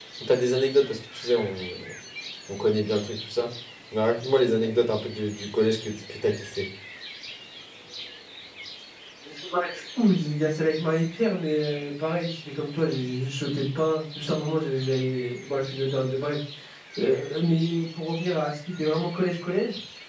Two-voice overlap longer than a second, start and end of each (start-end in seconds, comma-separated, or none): none